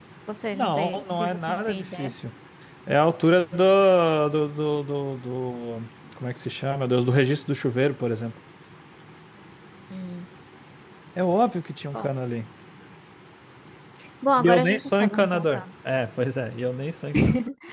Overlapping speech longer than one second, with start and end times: 0.5-2.1, 14.4-15.6

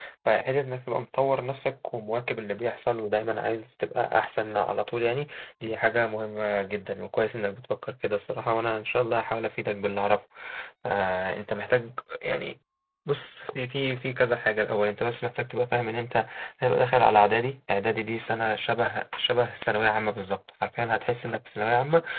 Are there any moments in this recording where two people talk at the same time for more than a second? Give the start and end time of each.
none

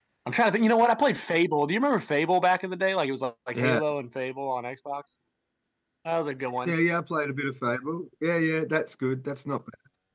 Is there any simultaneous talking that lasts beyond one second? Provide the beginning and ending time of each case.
none

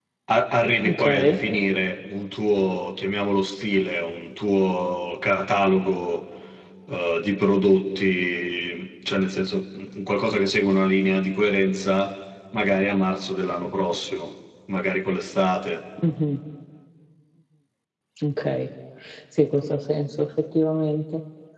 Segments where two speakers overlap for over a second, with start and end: none

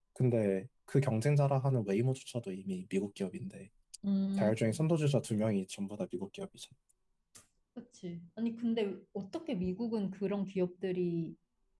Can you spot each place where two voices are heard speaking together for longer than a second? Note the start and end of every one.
none

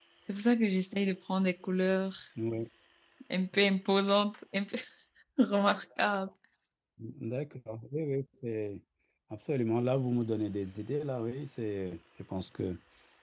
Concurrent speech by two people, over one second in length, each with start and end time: none

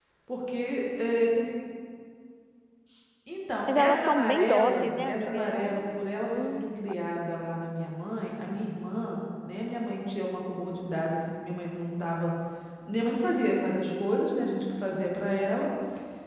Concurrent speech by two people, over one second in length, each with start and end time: 3.8-5.8

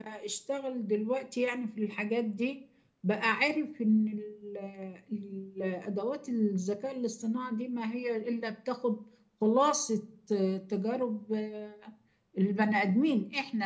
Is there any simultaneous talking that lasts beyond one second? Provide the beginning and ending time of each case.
none

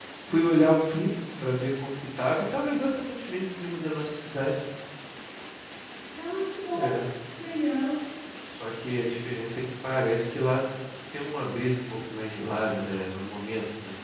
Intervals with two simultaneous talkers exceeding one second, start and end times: none

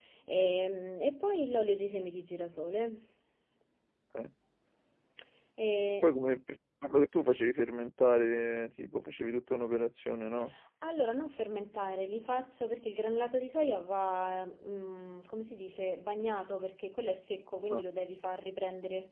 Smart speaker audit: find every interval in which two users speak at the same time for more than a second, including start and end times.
none

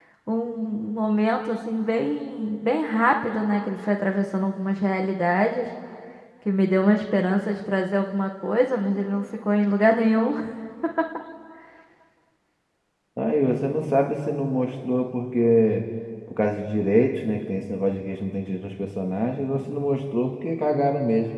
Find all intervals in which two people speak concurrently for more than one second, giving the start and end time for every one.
none

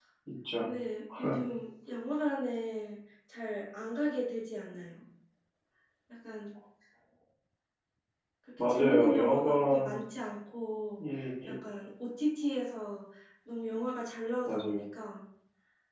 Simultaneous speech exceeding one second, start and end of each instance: 8.6-9.9

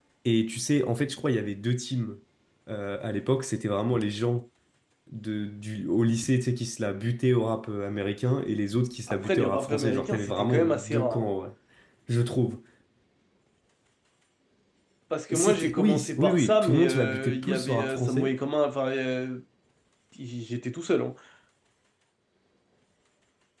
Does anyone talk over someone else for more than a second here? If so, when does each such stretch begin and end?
9.1-11.3, 15.3-18.3

